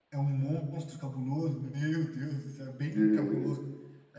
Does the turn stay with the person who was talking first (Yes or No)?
Yes